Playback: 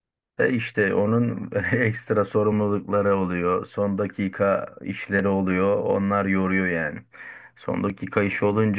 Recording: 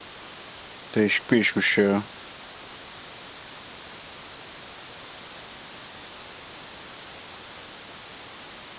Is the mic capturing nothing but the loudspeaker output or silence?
No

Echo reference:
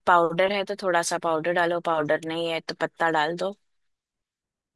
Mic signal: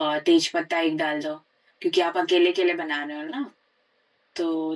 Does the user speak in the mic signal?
Yes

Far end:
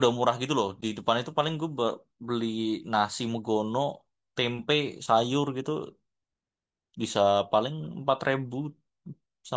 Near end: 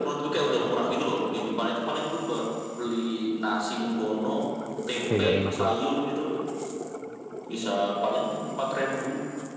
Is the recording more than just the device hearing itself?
Yes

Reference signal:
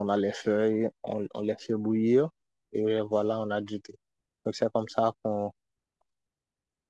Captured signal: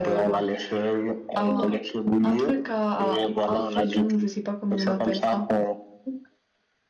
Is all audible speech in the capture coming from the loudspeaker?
No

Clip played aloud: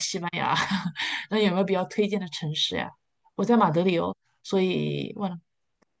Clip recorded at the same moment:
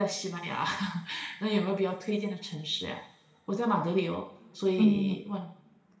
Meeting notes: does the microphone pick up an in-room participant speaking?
Yes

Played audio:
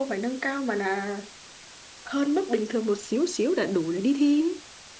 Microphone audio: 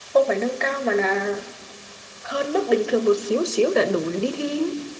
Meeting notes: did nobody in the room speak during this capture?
Yes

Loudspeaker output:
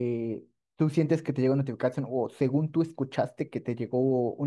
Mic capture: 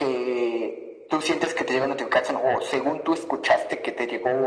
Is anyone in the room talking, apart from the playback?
No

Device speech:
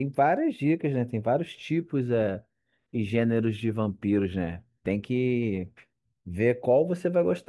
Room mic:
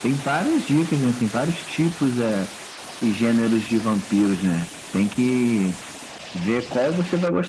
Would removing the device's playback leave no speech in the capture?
Yes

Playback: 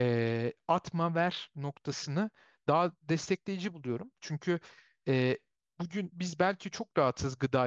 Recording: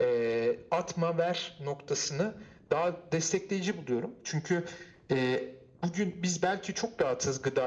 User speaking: No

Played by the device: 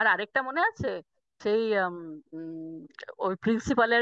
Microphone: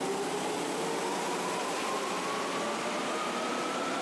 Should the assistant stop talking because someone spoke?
No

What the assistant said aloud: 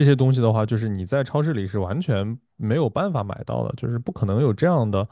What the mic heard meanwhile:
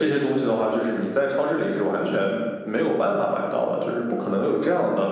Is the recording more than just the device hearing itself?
No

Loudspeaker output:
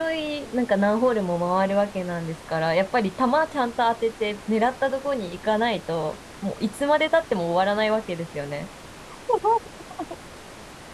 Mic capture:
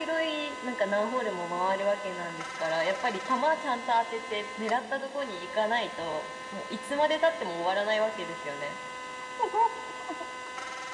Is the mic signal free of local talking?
Yes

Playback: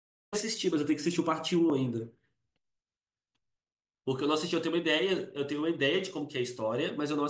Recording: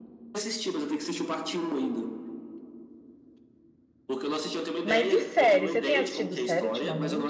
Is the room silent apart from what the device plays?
No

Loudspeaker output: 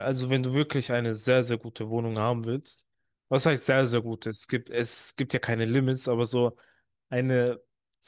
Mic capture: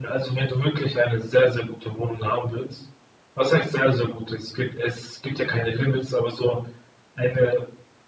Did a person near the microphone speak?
No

